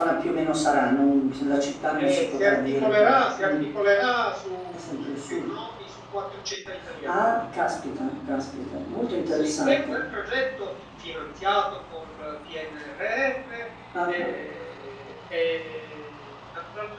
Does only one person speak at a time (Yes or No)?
No